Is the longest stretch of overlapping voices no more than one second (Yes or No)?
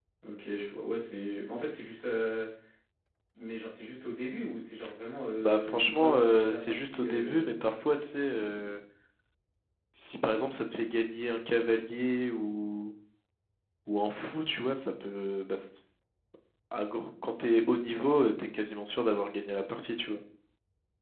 No